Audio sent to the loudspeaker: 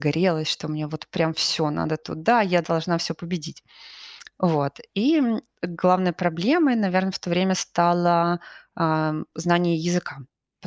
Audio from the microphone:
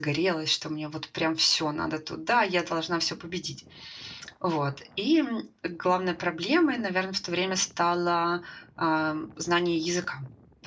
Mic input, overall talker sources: echo only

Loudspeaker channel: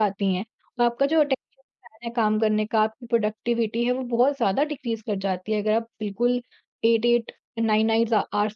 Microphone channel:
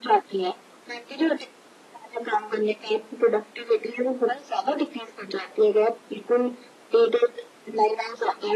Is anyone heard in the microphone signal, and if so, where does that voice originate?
echo only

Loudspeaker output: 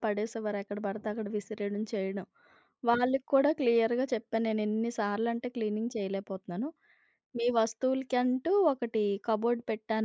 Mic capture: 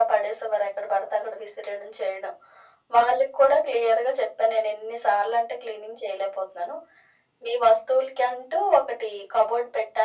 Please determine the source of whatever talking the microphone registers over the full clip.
echo only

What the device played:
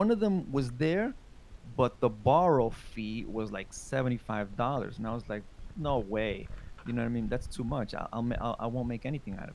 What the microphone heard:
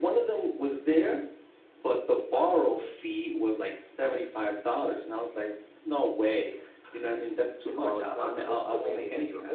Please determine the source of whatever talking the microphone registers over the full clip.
both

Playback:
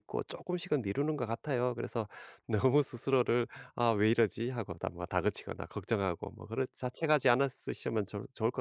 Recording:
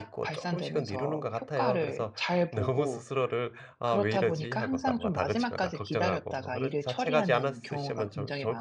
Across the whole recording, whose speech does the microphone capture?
both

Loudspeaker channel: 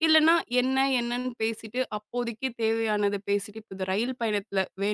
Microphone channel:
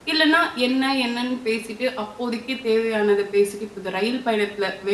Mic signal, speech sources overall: echo only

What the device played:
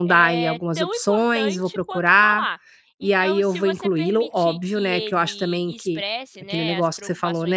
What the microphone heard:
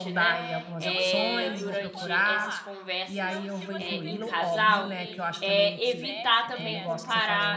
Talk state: both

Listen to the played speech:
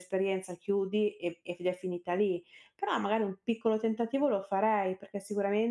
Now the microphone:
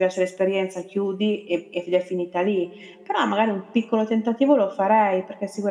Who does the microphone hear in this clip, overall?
echo only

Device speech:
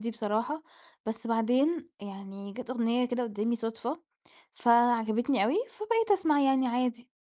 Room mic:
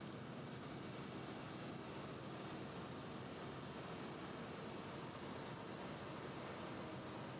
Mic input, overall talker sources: neither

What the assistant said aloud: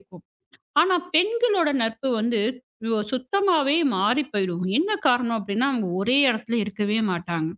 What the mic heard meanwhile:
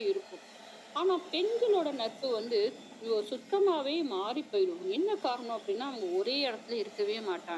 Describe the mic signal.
echo only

